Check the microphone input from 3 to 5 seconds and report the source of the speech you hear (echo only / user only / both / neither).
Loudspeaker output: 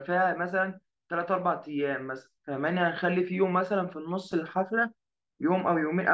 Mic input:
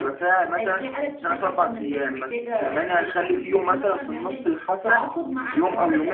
both